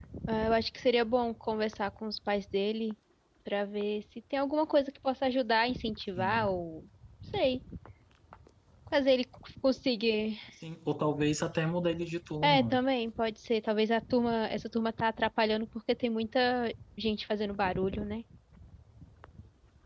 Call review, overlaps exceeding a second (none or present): none